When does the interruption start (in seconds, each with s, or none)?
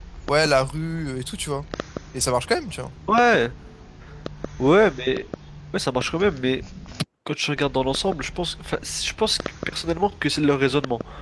none